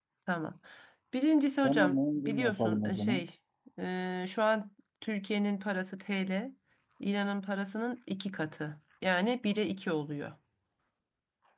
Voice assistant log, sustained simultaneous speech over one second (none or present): present